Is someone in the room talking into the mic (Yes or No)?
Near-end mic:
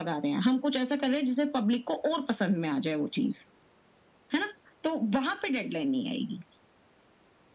No